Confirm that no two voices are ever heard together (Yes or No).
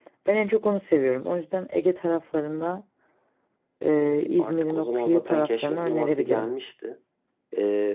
No